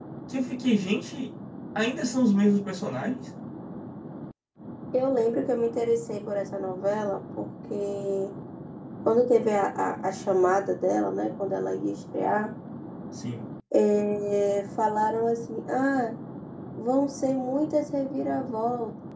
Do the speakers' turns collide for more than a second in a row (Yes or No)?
No